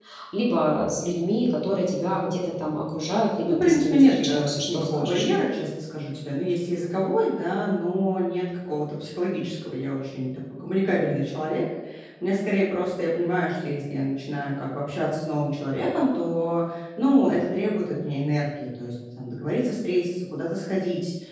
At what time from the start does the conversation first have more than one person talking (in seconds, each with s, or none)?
3.5 s